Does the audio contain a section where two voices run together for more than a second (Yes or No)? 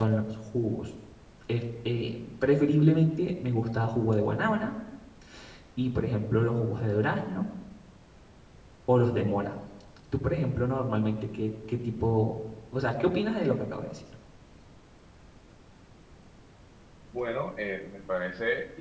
No